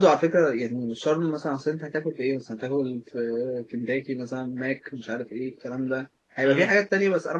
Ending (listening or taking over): listening